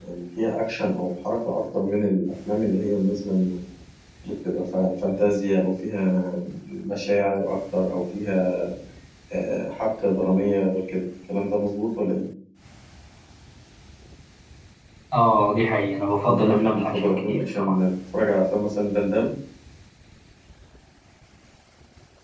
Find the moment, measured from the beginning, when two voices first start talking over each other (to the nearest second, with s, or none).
16 s